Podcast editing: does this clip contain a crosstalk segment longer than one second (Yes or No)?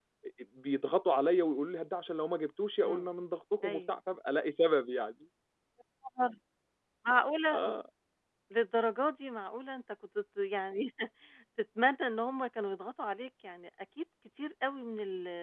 No